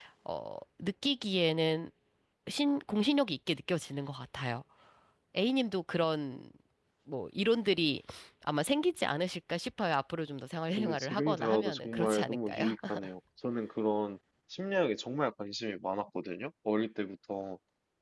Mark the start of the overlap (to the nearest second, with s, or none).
11 s